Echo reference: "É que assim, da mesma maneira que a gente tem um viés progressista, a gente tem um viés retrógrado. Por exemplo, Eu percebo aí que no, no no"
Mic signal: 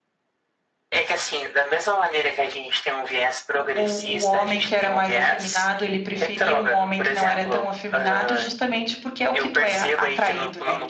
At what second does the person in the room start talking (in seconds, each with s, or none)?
3.5 s